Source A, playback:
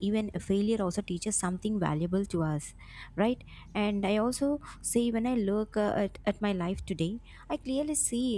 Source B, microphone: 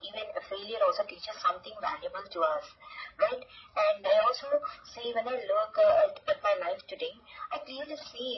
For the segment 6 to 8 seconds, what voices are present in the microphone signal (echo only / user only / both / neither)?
echo only